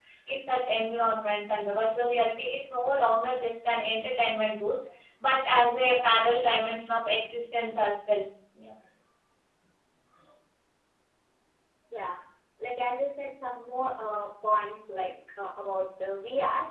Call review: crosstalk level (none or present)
none